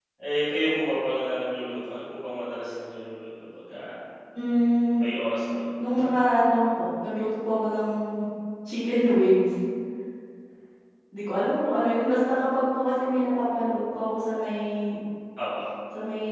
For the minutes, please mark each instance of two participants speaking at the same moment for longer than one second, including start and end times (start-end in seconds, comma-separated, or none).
none